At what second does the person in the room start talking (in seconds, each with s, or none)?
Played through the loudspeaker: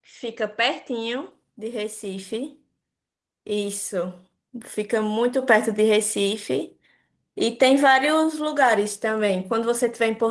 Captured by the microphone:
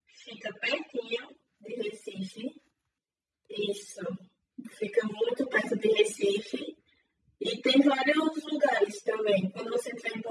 none